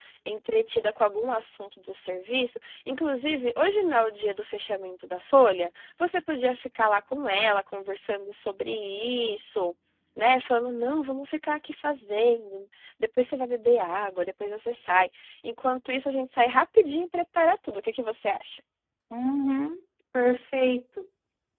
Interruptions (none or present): none